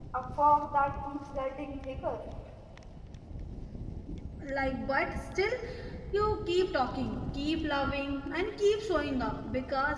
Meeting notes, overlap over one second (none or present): none